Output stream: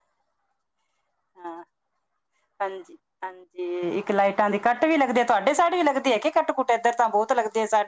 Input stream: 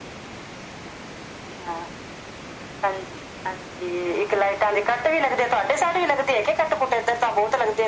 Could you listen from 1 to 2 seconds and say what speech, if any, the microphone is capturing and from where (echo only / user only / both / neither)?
echo only